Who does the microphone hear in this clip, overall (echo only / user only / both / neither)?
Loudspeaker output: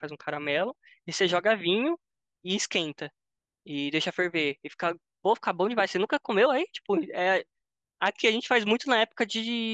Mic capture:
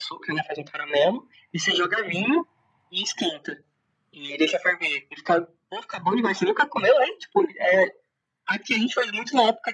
echo only